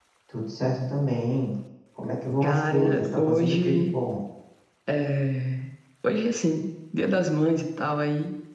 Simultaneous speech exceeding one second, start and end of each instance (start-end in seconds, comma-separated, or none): 2.4-4.0